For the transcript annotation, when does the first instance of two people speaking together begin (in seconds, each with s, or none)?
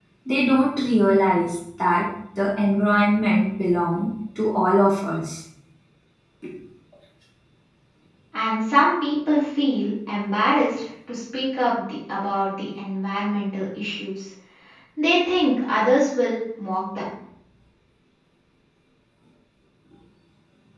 none